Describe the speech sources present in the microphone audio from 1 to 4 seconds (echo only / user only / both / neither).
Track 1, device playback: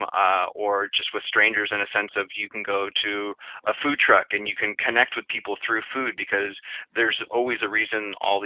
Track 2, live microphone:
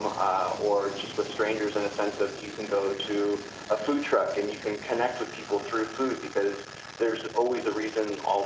echo only